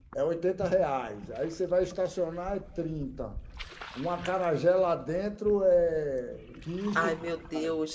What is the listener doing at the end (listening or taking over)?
taking over